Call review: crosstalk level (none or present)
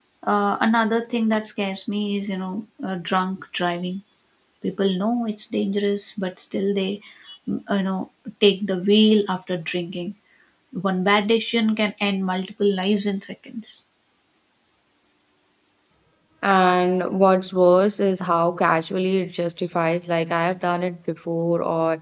none